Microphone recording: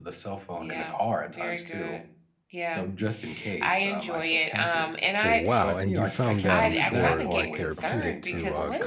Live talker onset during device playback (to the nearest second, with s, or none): 5 s